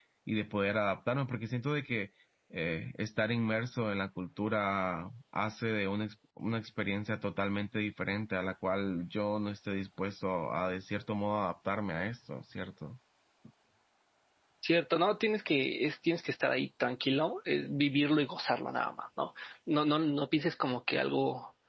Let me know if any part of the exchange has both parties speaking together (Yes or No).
No